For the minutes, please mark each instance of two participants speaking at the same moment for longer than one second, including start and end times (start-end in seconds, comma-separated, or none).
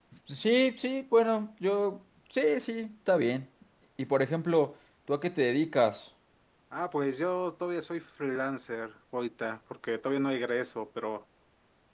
none